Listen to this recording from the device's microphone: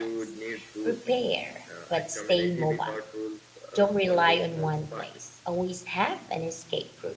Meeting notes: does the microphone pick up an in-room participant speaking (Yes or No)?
Yes